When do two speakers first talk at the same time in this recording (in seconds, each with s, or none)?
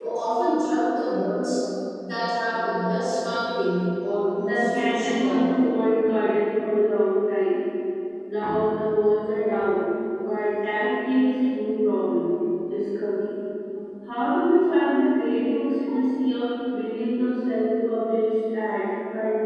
4.3 s